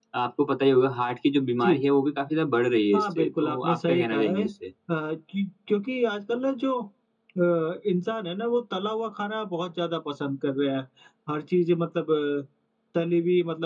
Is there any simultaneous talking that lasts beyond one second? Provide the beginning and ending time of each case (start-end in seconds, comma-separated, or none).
2.9-4.5